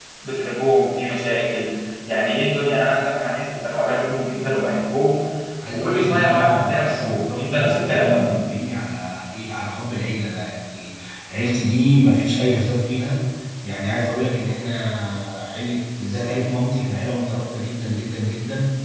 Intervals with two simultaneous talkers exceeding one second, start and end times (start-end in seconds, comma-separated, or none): 5.7-8.4